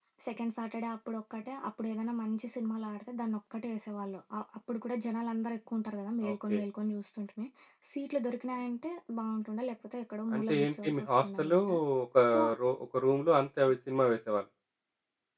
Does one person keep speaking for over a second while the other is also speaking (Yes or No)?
Yes